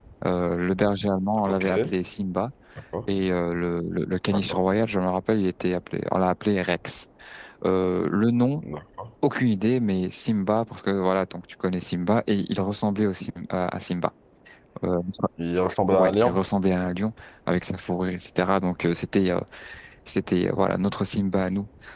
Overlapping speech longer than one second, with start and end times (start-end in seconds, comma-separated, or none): none